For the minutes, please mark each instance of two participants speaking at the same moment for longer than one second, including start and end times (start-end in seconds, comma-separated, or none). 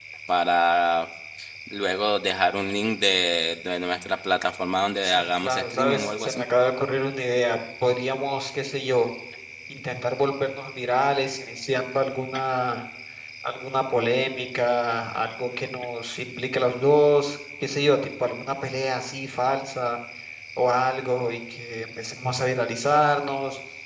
5.0-6.5